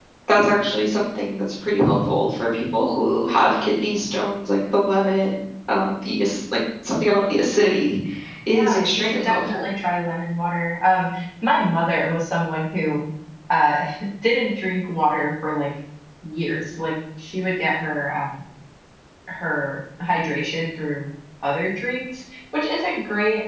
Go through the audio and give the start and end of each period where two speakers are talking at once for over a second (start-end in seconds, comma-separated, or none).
8.5-9.7